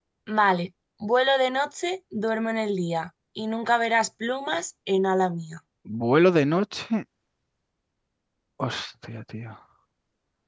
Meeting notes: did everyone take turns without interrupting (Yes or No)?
Yes